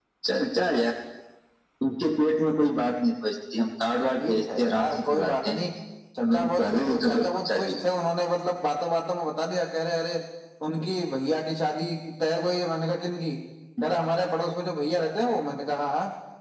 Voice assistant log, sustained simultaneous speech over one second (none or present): present